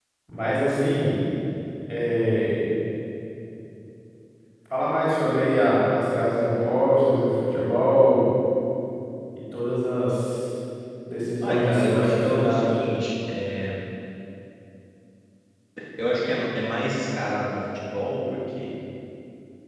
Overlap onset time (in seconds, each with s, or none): 11.4 s